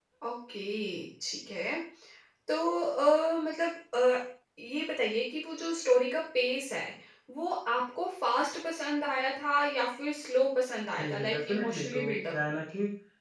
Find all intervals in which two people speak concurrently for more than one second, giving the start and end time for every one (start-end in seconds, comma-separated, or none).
11.0-12.3